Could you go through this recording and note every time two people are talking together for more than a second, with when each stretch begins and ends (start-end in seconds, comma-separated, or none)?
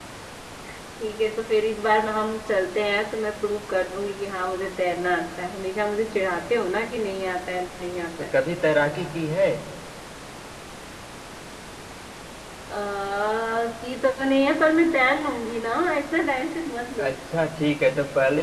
none